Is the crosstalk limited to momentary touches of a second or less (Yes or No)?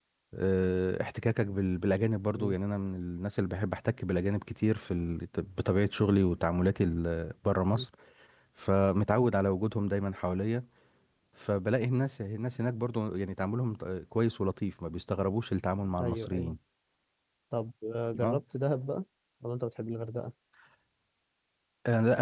Yes